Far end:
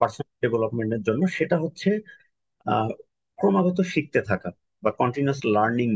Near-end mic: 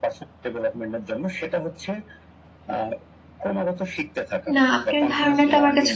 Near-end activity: present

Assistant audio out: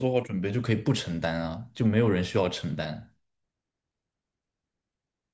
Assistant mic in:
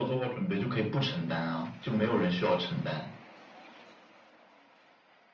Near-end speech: none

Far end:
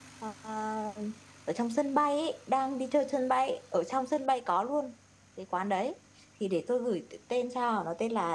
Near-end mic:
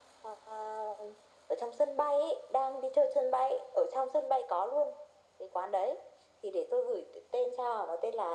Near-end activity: none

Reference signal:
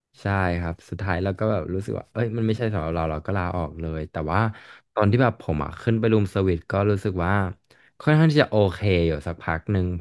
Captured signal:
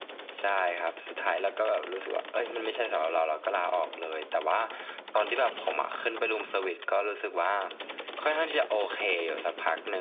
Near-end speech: none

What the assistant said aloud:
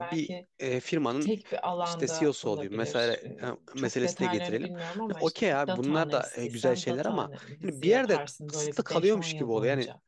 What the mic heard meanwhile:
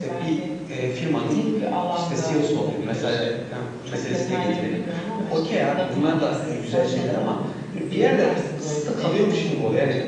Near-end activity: none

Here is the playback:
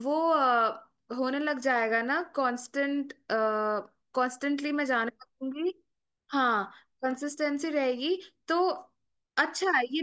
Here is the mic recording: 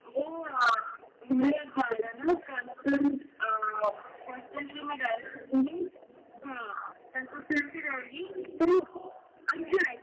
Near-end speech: none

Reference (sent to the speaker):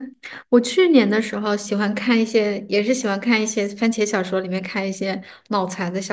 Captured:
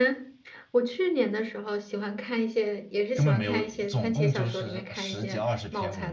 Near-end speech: present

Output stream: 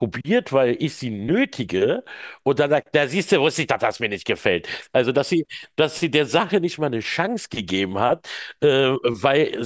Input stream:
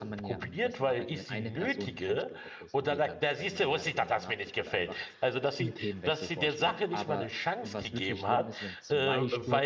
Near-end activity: present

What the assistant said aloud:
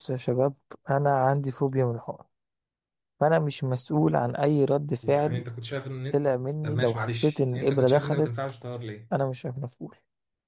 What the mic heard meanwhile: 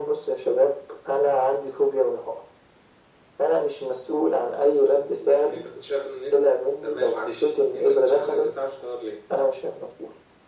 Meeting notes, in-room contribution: none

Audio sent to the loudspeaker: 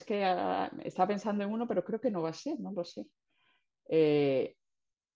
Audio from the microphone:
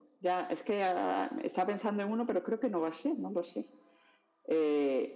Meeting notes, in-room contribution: none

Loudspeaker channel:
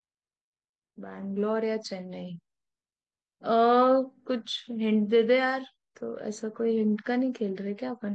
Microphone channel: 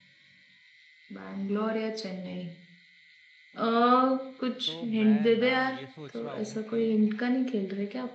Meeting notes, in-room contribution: present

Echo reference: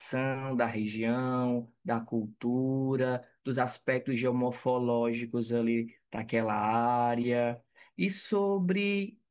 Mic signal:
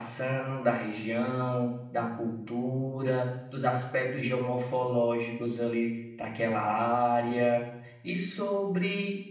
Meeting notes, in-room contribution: none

